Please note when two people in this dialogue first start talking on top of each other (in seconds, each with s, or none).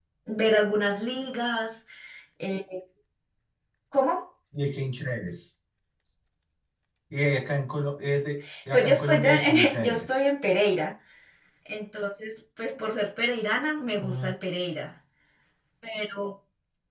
8.7 s